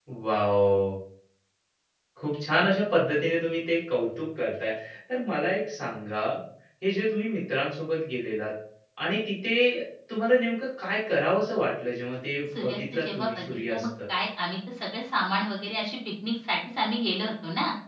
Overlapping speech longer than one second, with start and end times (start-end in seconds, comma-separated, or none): 12.6-13.9